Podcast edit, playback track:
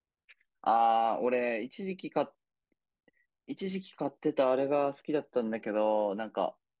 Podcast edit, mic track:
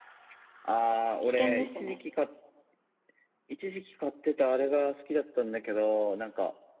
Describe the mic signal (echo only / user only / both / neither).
both